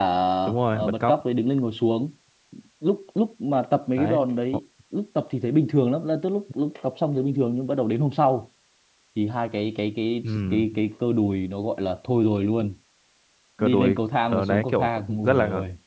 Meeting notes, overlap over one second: present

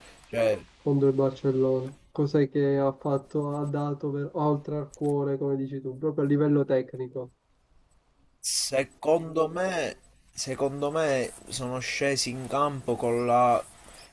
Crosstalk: none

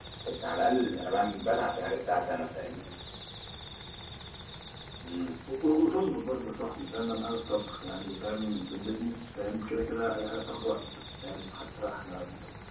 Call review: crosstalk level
none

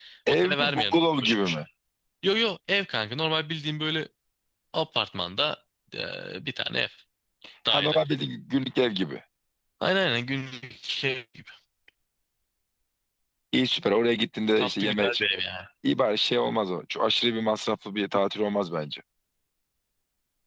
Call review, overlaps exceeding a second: present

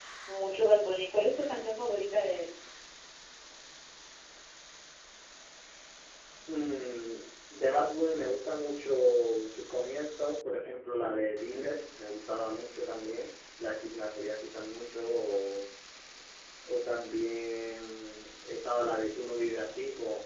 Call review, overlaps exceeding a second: none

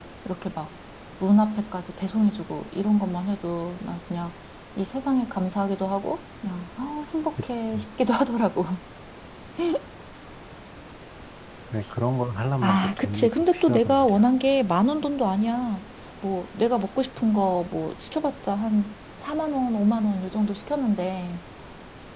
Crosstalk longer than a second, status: present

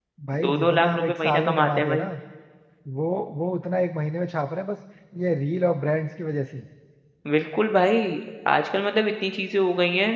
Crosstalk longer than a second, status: present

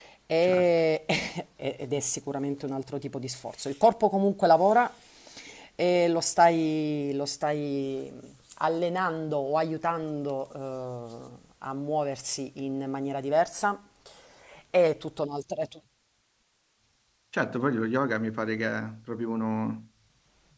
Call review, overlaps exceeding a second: none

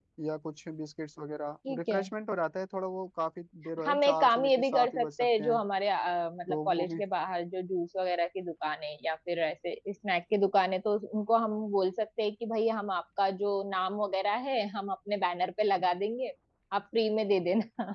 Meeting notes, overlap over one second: present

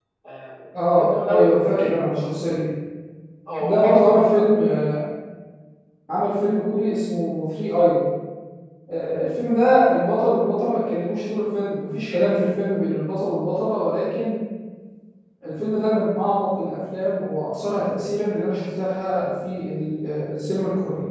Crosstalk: present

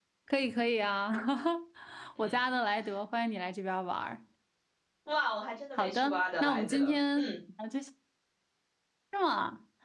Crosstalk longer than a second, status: present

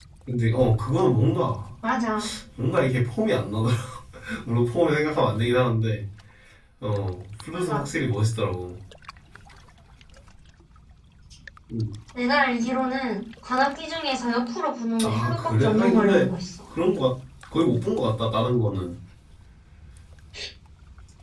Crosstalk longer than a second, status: present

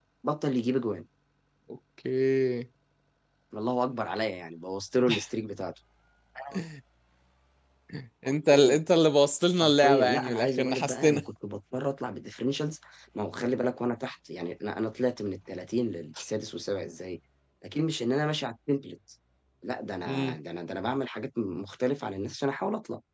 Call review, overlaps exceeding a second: present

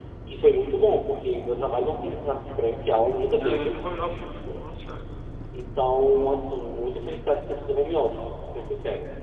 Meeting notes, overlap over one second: none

